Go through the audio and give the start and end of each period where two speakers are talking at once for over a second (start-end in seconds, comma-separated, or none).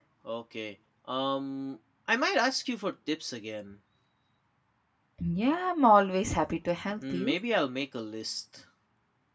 none